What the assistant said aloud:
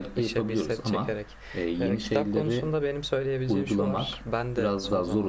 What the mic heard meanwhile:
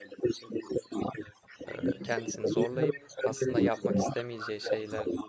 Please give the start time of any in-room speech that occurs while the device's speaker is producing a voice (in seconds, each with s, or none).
1.7 s